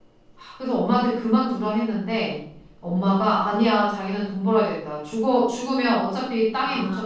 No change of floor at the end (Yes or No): Yes